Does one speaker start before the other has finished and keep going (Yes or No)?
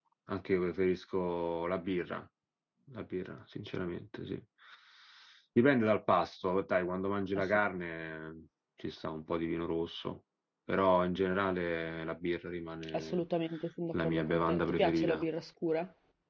Yes